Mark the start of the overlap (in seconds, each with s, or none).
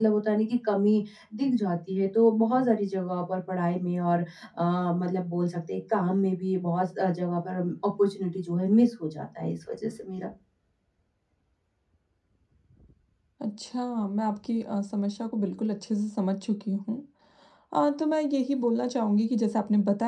none